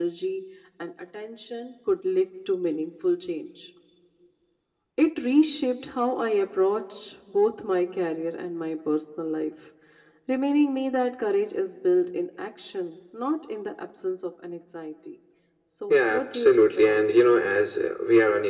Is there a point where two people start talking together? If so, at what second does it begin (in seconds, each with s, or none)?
15.9 s